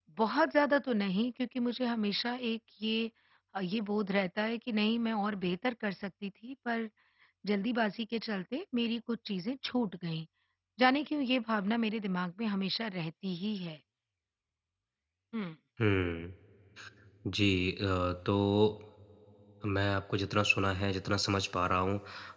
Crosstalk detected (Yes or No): No